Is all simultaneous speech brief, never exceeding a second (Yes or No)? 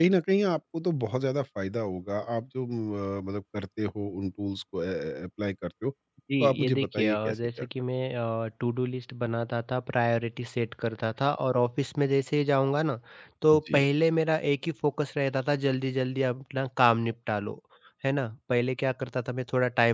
No